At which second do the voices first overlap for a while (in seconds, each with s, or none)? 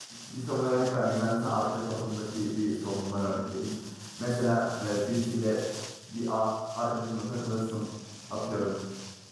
none